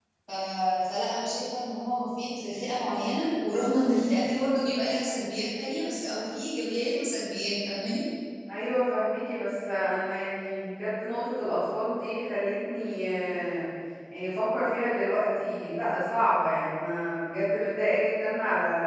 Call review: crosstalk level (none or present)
none